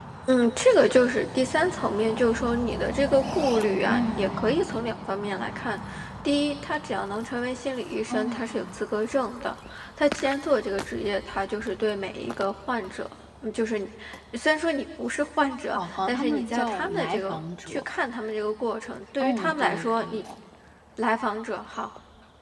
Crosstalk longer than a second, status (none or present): present